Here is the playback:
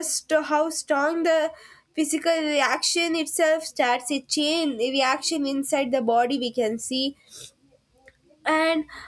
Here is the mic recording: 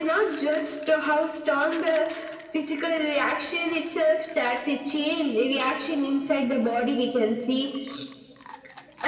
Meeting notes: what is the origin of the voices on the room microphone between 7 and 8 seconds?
echo only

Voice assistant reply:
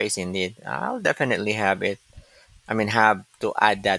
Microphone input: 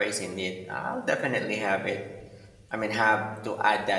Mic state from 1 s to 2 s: echo only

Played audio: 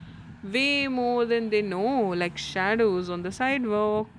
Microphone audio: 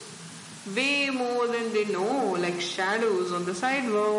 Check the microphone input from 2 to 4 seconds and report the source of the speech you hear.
echo only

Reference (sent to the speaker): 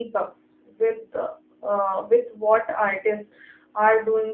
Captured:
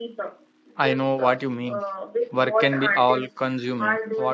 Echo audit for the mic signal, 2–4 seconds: both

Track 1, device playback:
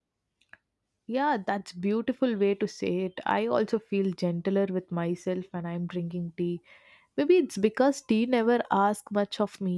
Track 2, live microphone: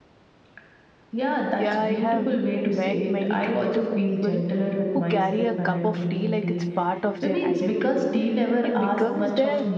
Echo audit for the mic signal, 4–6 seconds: both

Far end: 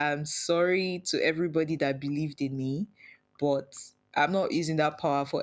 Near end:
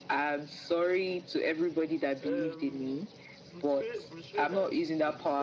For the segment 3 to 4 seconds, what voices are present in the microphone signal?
both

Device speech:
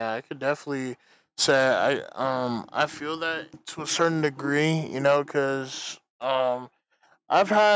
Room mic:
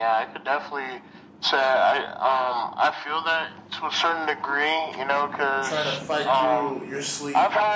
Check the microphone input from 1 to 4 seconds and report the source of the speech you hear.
echo only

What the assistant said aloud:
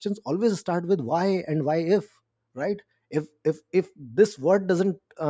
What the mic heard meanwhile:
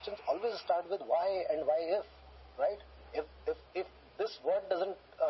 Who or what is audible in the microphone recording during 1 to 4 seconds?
echo only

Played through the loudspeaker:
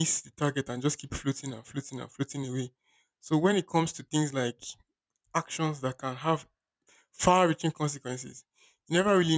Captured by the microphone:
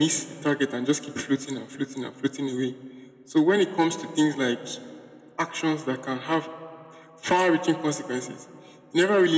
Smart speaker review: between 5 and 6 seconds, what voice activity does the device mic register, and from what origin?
echo only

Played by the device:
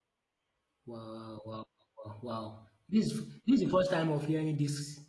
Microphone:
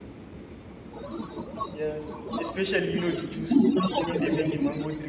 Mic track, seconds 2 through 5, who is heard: both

